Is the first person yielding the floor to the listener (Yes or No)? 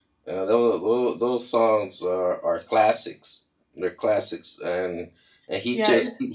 Yes